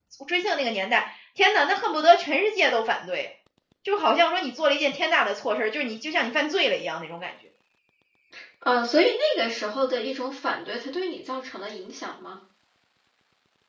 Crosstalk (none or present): none